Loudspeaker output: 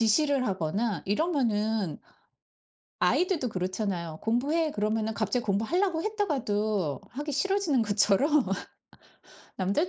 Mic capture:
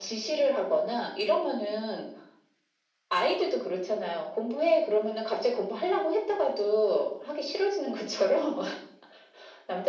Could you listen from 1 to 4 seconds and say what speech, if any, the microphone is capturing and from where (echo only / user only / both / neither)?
echo only